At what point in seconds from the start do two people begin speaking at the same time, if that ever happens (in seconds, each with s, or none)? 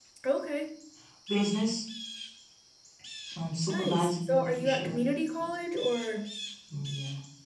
3.7 s